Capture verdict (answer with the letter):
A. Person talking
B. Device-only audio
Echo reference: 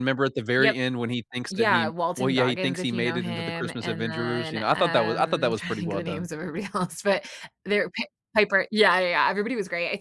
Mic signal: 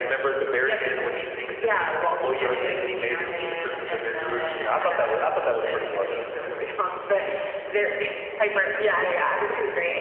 B